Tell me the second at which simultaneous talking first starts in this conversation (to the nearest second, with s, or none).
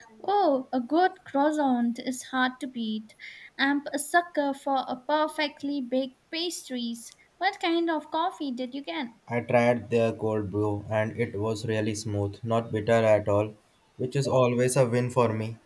none